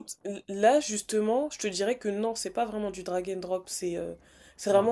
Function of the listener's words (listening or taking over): listening